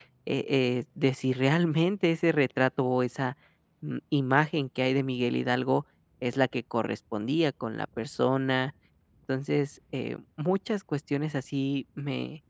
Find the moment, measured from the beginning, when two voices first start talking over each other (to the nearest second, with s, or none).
none